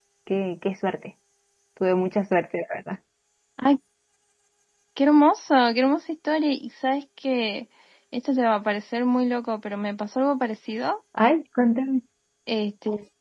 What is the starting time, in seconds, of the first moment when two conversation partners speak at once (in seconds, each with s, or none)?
none